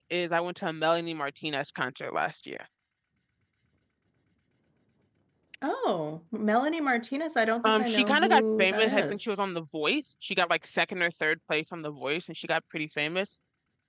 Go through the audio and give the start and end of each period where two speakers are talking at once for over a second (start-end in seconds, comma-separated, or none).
7.6-9.2